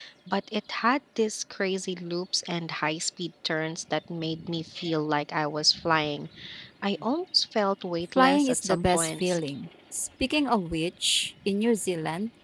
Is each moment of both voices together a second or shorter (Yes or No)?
No